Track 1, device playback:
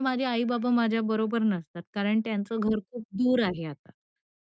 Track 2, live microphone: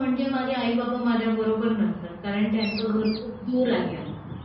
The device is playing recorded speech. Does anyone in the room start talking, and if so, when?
none

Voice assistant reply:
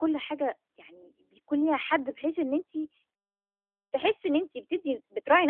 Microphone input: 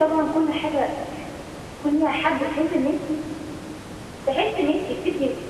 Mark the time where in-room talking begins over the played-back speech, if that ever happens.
none

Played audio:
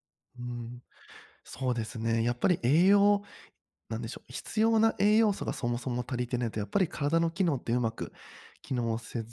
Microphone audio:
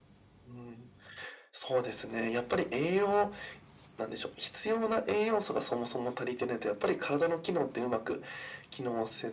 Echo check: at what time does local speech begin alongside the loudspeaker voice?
none

